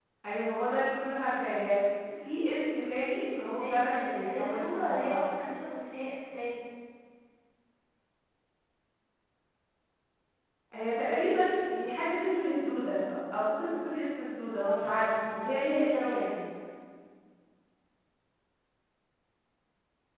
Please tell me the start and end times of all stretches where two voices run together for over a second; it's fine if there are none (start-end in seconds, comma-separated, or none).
3.5-5.4, 14.6-16.4